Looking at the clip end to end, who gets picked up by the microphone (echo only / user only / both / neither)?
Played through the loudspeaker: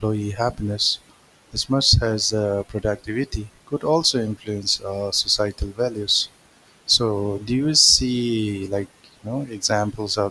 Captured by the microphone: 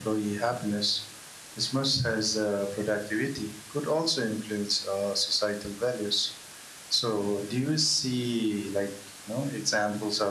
echo only